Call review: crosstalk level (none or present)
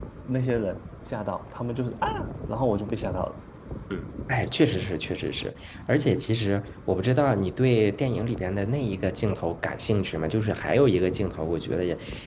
none